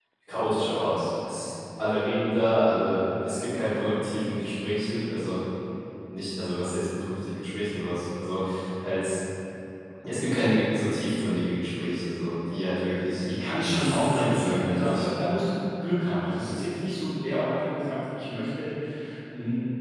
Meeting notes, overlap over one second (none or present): present